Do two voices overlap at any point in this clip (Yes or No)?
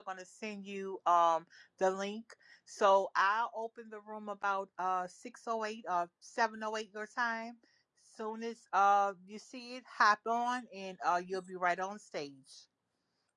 No